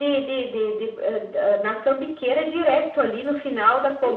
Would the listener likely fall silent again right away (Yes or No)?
No